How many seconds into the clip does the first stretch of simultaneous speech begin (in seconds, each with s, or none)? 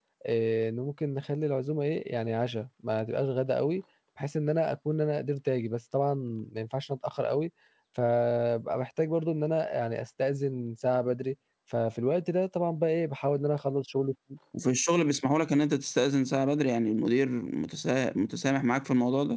none